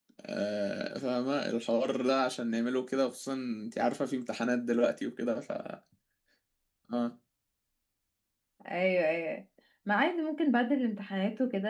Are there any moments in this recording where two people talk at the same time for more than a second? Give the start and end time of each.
none

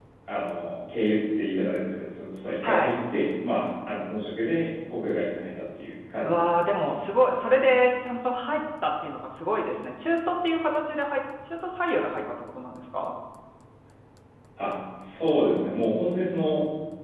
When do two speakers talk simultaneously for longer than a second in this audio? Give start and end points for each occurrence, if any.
none

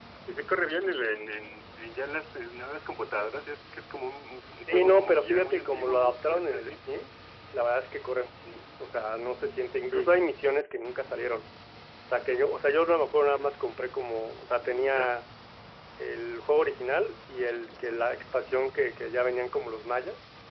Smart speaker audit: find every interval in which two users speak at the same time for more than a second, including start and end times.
4.7-6.8

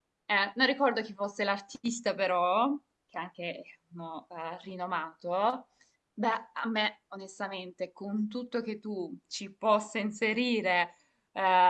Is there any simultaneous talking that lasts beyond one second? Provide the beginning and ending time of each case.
none

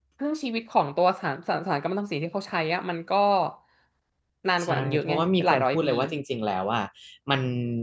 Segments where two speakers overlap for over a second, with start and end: 4.6-5.9

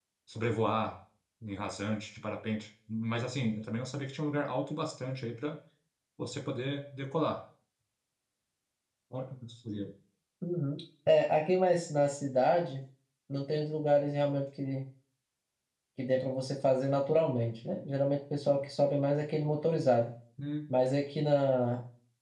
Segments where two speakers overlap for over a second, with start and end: none

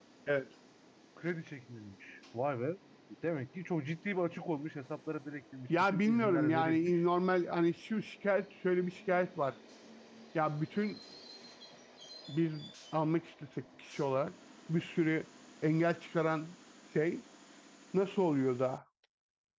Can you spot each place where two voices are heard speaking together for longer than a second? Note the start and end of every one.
5.7-7.0

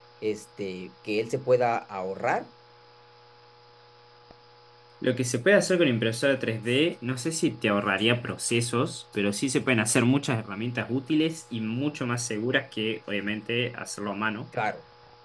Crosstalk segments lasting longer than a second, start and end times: none

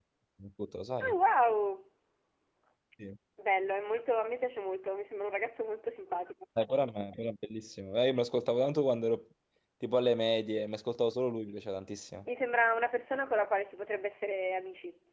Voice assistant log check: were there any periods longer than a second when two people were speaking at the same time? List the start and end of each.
none

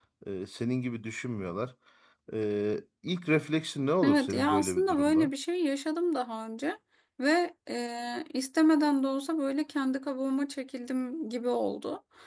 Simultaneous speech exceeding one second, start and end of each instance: 4.0-5.3

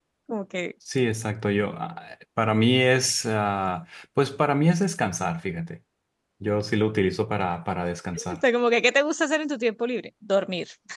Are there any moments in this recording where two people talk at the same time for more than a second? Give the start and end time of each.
none

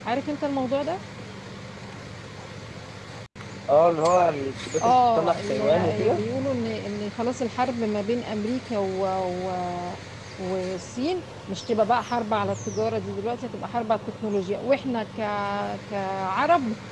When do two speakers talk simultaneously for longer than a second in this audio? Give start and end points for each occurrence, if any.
4.8-6.2

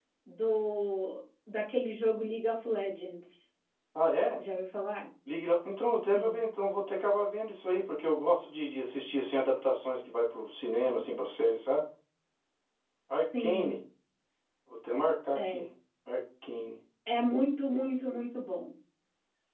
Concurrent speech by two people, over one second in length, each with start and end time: none

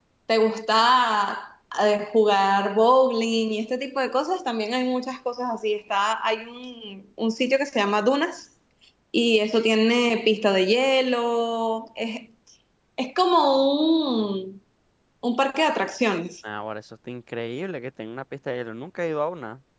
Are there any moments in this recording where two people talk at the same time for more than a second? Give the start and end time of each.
none

